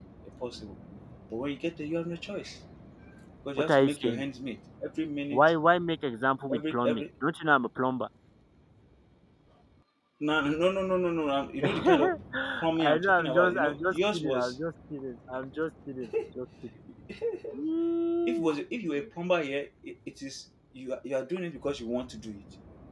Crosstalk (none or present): present